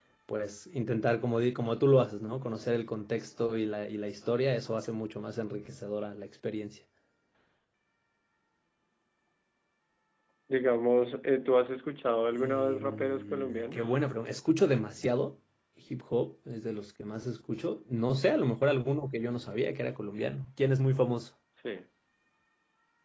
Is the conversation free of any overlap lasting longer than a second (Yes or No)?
No